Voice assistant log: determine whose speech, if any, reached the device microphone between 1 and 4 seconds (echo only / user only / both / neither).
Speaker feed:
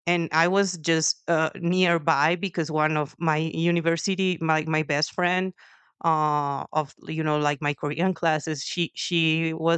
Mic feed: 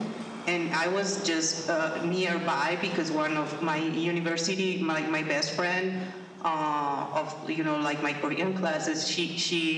echo only